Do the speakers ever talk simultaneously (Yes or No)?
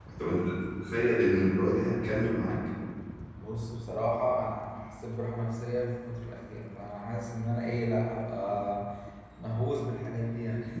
No